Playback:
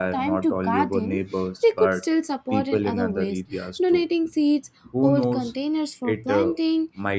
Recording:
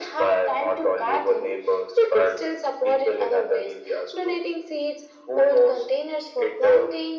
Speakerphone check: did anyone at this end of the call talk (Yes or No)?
No